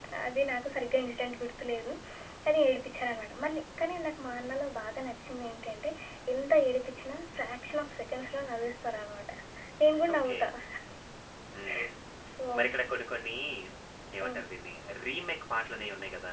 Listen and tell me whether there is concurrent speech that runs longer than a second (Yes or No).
No